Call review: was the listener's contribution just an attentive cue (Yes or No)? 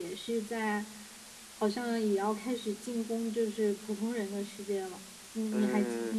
No